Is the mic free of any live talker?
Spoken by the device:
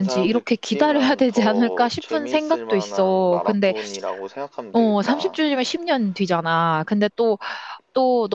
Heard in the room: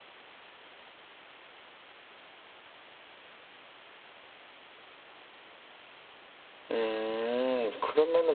No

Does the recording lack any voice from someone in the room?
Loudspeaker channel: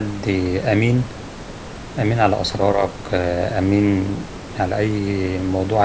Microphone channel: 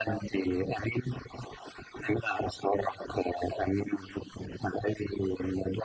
Yes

